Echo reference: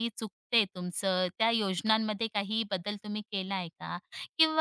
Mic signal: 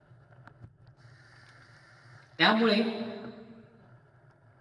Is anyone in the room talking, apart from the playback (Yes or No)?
Yes